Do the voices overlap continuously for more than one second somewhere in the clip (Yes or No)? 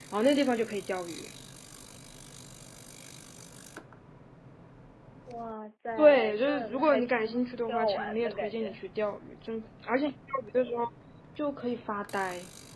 Yes